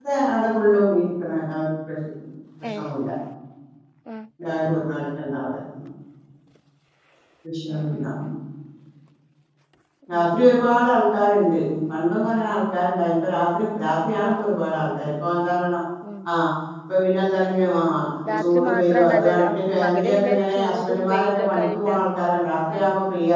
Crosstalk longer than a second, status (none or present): present